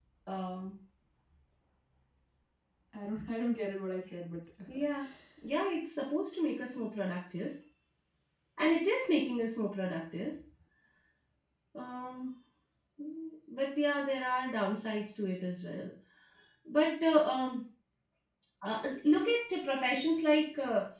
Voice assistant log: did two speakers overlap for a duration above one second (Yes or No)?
No